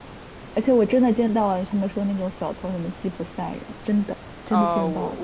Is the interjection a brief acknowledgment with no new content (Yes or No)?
No